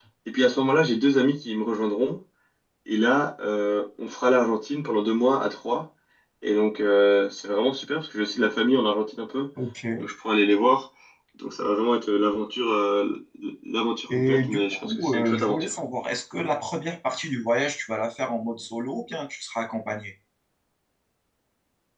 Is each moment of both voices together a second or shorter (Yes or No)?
No